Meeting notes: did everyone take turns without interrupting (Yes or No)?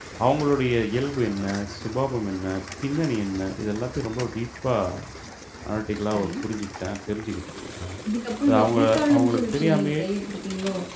No